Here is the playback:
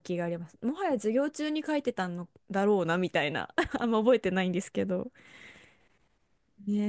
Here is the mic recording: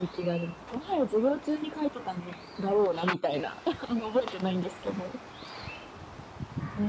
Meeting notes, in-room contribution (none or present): none